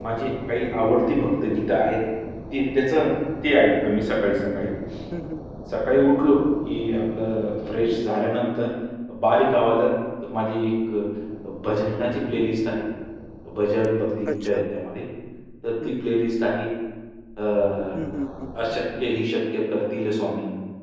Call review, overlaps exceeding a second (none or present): none